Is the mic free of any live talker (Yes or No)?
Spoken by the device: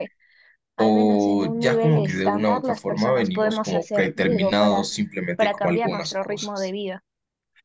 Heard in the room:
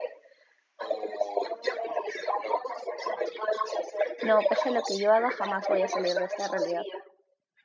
No